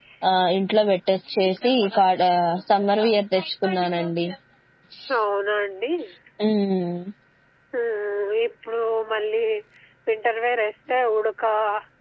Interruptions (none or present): none